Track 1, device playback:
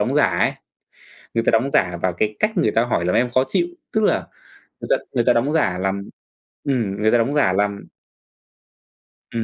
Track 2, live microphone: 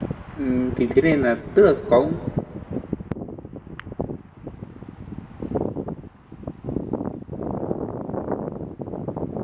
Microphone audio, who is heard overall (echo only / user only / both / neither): user only